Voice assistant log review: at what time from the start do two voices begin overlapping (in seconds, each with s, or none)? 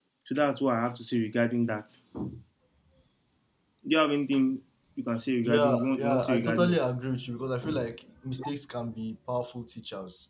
5.4 s